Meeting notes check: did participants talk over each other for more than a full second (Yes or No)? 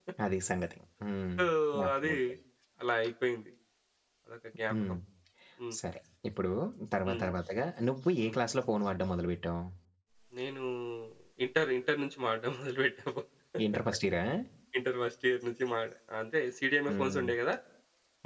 No